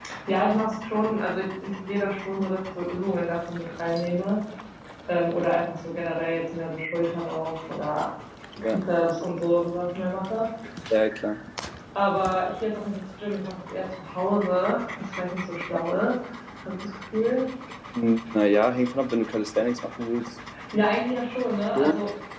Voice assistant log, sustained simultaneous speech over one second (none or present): none